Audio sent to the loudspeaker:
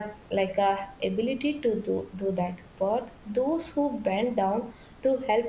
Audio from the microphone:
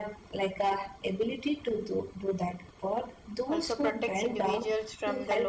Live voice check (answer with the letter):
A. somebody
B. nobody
A